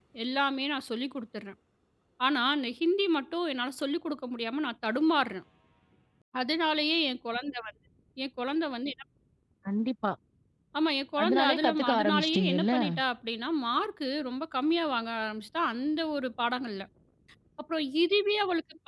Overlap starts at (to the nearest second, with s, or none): 11 s